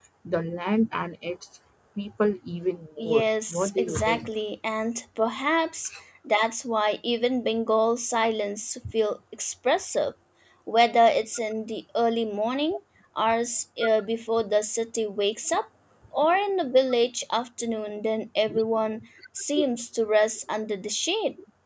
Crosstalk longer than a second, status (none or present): present